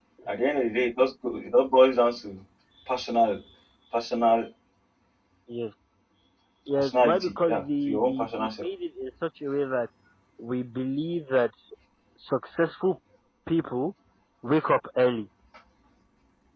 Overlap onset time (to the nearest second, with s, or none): 7 s